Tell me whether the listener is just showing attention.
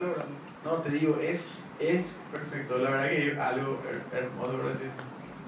No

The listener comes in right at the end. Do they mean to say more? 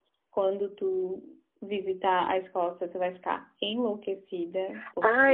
Yes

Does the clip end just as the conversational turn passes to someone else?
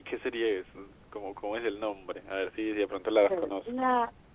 Yes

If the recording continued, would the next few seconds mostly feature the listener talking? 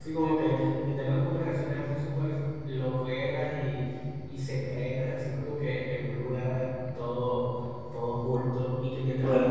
No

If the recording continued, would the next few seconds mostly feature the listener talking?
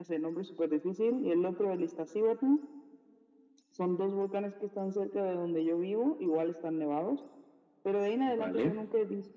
No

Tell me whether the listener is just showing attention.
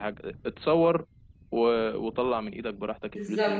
No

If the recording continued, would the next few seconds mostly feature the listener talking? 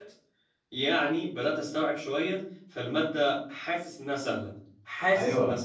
Yes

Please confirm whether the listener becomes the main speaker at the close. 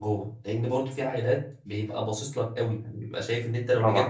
No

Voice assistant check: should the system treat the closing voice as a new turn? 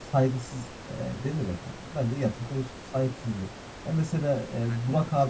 No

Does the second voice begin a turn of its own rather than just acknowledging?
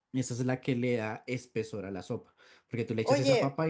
Yes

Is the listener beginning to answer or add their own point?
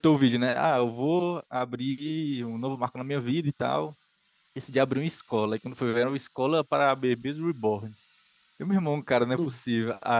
No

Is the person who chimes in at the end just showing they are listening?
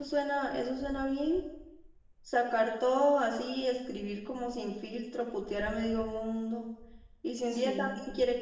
Yes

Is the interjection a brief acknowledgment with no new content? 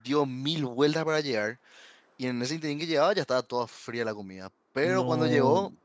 Yes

